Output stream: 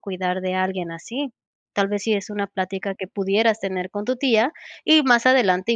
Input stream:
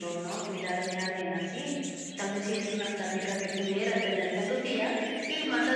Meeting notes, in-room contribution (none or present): none